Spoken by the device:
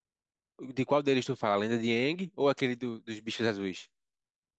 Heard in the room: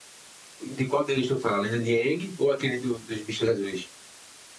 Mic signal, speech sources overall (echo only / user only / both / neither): echo only